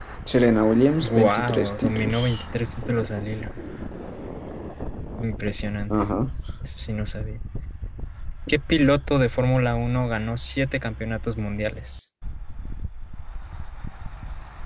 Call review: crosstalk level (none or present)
present